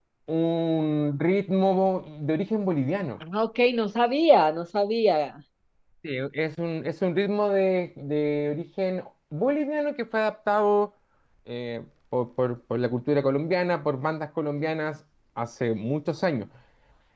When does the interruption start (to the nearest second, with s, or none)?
none